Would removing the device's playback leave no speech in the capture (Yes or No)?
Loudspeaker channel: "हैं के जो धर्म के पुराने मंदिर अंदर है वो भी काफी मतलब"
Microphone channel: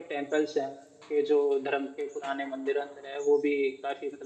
Yes